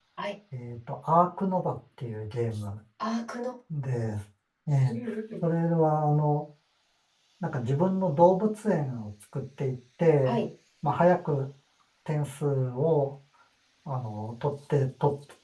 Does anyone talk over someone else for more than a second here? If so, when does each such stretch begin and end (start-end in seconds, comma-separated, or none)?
none